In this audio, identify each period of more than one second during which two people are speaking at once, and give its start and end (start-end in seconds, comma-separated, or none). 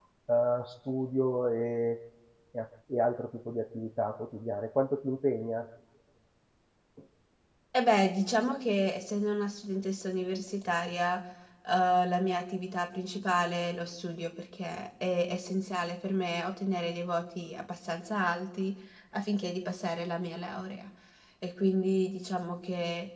none